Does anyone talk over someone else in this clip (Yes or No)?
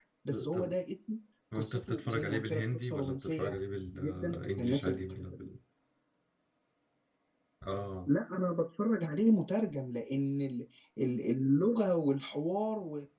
Yes